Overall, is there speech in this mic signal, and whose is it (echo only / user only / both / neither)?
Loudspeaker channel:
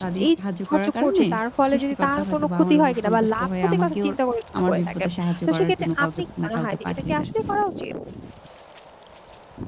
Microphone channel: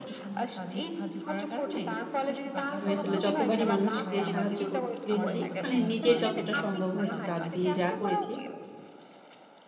both